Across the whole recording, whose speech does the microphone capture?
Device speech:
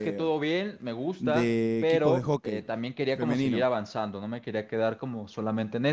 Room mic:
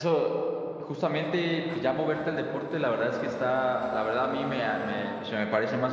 user only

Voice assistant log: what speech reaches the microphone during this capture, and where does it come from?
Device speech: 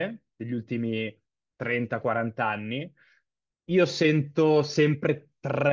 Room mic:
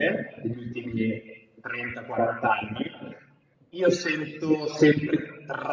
echo only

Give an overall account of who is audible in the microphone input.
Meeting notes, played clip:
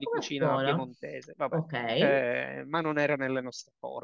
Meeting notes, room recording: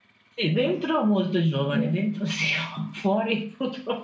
user only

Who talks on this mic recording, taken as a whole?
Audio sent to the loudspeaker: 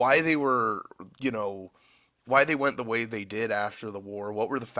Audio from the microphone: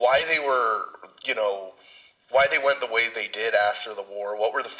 echo only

